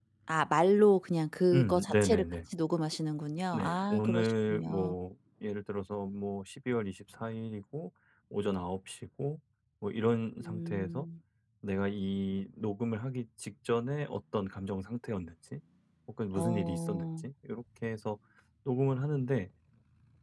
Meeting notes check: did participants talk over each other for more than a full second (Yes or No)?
Yes